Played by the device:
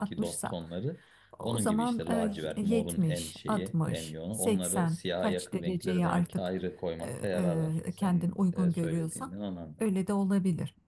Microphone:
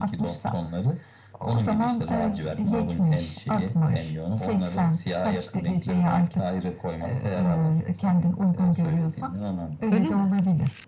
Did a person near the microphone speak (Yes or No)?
Yes